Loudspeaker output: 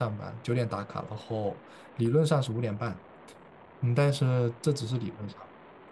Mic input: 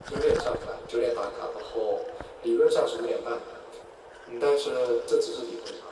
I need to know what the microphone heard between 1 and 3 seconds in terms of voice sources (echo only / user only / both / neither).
echo only